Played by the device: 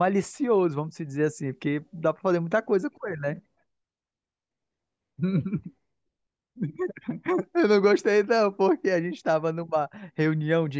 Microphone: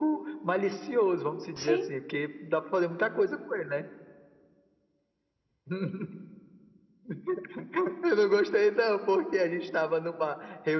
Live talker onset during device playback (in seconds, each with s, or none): 1.6 s